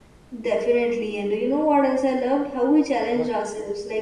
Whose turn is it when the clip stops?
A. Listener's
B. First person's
B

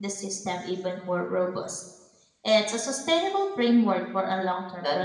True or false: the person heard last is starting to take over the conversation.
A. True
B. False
A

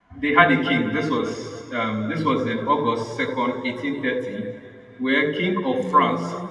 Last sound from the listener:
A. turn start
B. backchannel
B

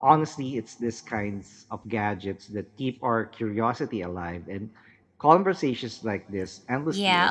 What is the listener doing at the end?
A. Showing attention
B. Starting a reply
B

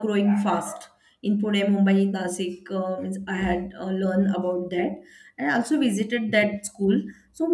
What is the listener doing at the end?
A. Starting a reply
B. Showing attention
B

